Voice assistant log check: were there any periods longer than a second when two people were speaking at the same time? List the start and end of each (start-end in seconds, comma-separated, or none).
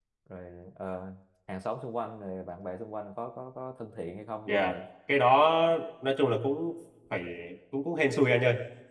none